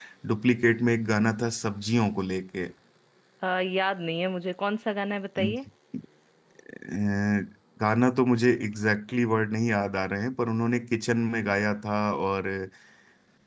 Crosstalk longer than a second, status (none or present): none